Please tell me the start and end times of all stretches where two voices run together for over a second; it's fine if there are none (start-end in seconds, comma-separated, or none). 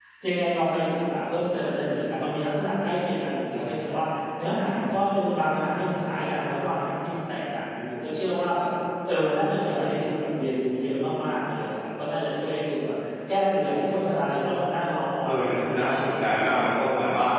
15.2-16.8